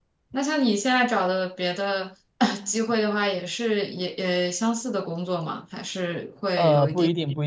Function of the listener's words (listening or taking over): taking over